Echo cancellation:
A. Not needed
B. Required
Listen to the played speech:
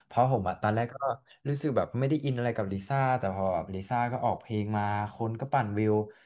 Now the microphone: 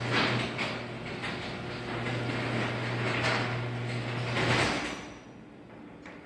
A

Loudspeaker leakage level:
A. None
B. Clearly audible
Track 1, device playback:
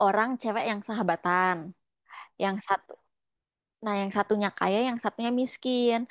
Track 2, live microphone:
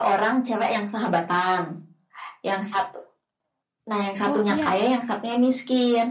B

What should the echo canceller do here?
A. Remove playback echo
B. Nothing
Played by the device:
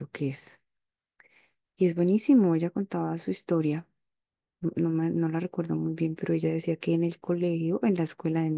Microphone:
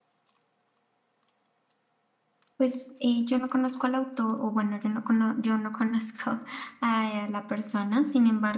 B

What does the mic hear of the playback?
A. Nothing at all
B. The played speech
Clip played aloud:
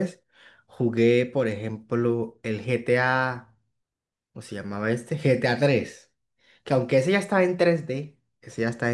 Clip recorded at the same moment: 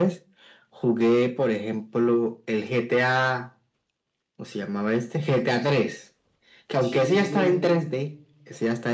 B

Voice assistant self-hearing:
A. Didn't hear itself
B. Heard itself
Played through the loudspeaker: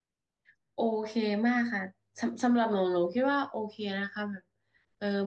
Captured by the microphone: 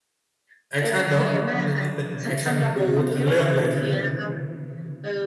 B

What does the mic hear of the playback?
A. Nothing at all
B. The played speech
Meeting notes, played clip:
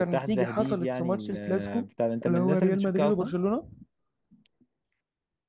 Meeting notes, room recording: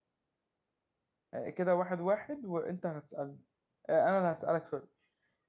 A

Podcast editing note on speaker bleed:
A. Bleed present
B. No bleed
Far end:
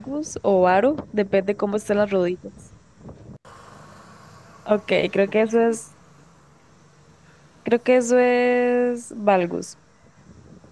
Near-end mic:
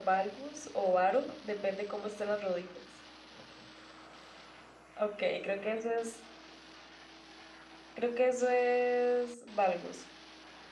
A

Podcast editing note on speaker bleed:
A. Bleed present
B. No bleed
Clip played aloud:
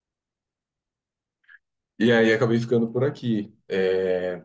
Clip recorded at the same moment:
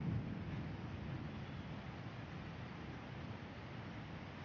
B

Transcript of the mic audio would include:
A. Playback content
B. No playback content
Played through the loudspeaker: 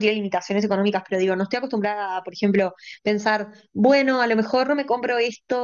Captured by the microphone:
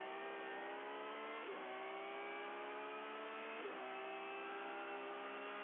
B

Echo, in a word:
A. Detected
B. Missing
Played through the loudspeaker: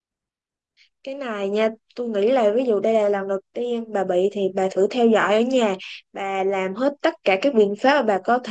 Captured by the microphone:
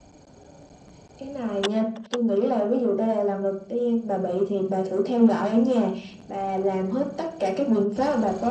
A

